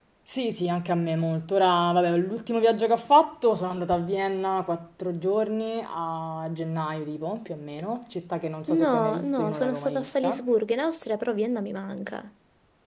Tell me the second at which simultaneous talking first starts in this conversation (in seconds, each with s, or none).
8.7 s